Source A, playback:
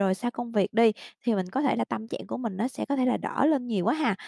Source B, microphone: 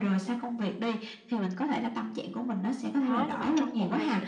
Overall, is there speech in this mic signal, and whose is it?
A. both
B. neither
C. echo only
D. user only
A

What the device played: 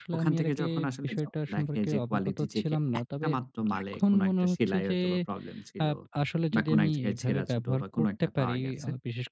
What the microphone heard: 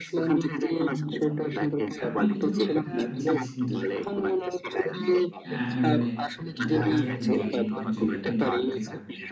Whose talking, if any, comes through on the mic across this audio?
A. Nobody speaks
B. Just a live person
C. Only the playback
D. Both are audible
D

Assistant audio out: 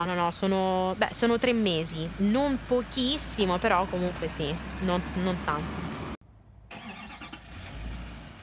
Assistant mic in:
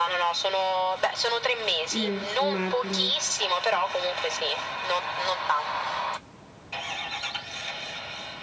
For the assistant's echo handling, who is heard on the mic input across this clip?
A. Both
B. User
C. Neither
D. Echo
A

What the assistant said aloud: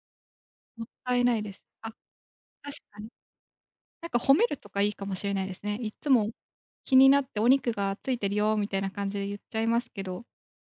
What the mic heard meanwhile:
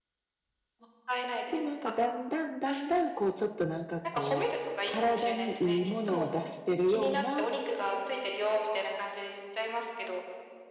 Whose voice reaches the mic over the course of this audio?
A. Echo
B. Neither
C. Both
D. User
C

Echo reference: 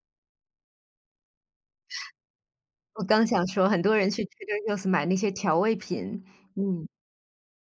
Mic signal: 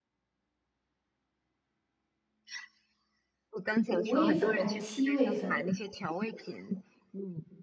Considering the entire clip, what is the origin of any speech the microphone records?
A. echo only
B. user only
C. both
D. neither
C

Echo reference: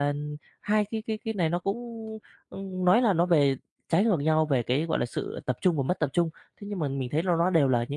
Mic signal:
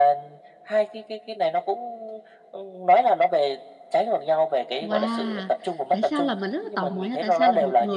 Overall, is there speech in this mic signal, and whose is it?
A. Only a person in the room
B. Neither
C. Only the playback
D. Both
D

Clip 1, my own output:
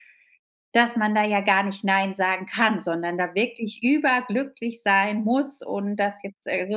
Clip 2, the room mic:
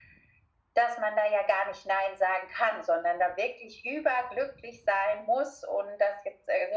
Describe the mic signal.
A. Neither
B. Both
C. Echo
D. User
C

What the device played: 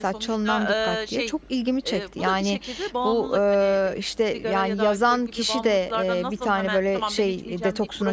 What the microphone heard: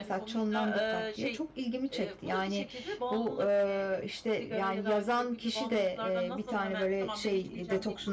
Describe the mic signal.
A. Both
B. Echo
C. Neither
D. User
B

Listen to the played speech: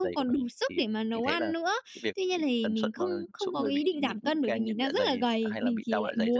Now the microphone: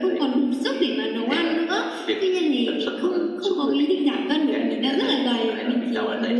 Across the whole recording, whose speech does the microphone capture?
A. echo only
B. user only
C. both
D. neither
A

